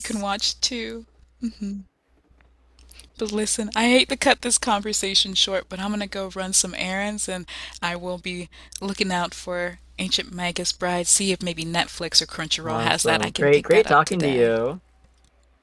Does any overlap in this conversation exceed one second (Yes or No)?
Yes